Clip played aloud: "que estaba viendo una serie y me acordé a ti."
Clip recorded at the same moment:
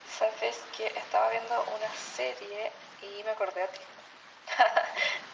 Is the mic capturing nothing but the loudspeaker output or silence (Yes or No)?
Yes